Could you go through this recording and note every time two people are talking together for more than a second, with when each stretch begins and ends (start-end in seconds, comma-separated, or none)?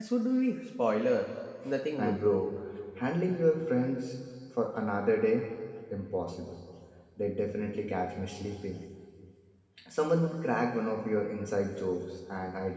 none